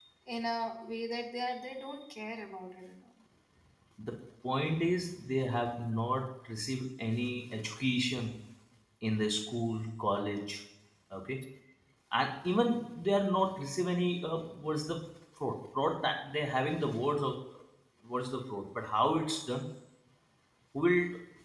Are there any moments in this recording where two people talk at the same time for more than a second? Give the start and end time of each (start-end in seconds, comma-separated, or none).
none